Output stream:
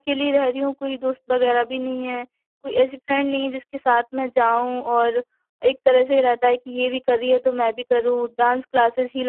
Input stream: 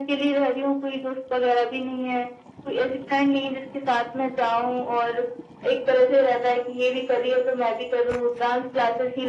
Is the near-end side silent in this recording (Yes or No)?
Yes